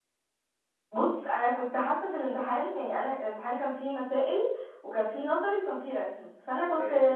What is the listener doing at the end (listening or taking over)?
listening